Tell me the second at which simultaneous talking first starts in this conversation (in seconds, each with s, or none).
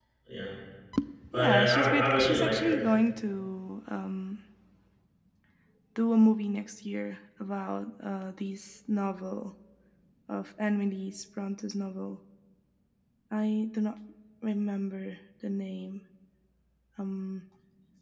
1.3 s